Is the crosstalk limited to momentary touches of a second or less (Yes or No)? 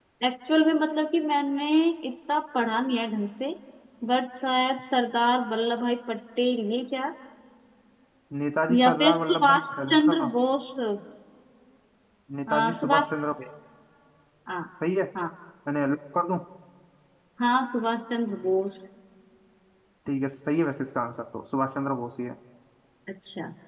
No